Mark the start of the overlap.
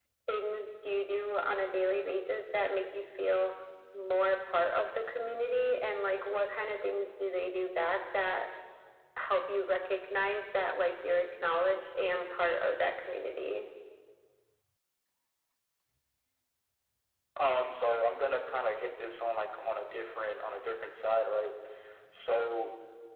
none

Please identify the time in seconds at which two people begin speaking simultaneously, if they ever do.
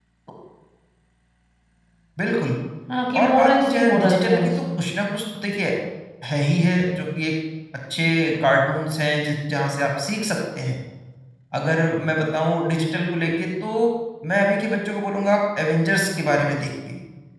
3.1 s

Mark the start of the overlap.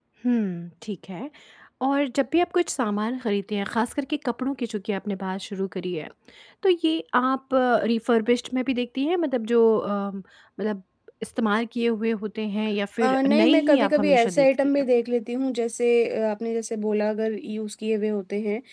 13.0 s

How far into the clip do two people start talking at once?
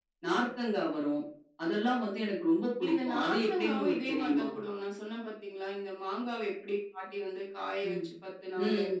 2.9 s

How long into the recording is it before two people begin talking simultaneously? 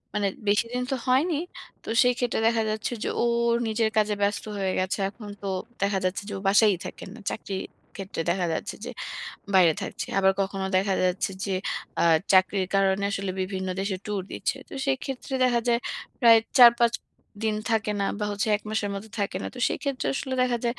none

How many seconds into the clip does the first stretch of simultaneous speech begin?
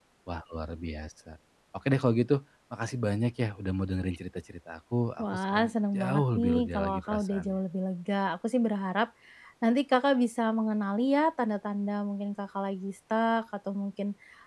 5.2 s

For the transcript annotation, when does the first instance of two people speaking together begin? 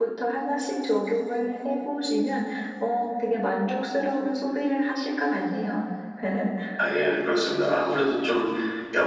none

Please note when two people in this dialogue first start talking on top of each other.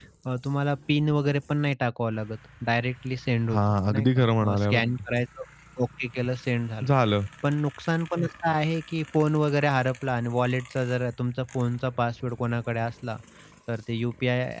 3.5 s

